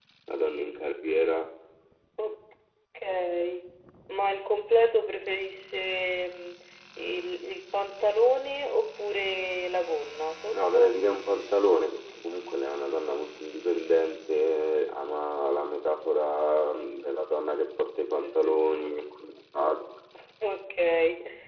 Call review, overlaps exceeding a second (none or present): none